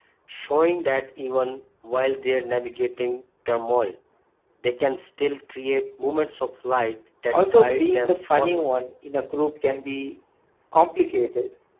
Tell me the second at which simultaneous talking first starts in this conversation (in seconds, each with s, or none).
7.3 s